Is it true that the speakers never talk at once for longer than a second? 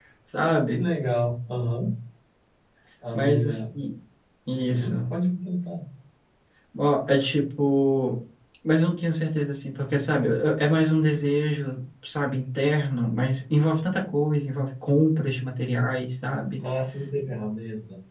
Yes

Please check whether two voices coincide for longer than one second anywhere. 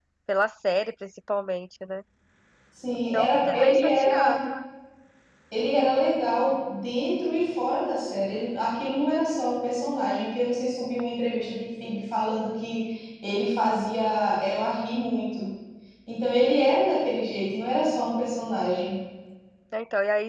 Yes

